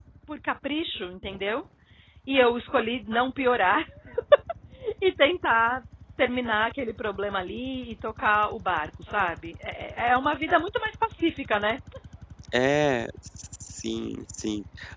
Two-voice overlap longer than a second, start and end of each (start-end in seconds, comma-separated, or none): none